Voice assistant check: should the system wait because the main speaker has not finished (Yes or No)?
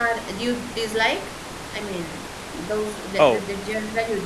Yes